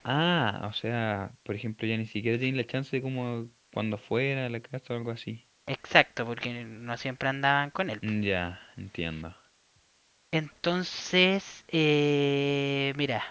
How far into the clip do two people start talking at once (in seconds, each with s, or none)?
none